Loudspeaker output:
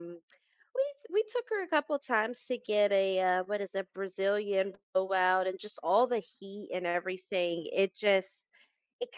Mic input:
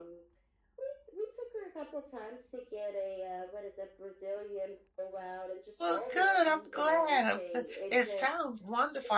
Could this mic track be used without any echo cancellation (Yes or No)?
No